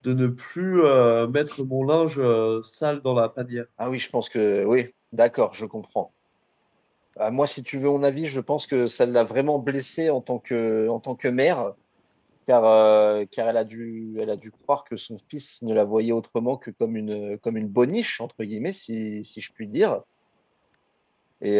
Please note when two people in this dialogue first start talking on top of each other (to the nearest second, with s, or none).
none